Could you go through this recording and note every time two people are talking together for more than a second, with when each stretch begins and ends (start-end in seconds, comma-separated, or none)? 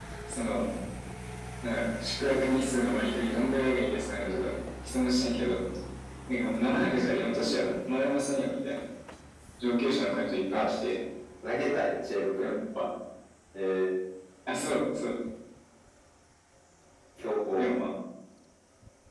none